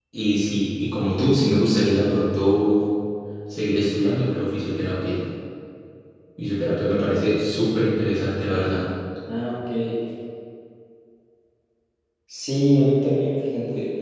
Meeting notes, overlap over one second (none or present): none